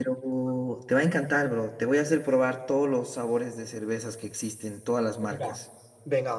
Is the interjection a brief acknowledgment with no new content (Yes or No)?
No